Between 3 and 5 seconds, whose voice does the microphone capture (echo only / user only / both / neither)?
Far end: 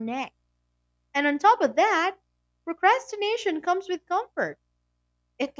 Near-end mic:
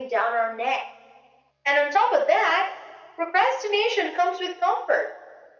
echo only